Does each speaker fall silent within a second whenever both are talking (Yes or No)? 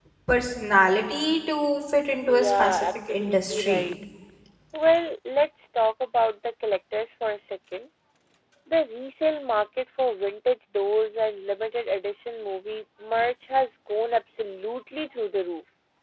No